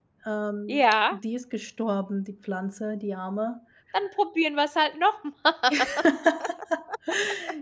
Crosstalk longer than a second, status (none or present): none